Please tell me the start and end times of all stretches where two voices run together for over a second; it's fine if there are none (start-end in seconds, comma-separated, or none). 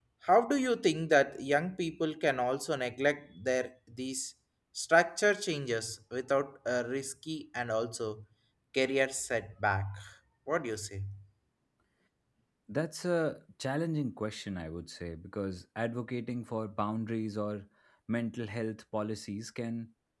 none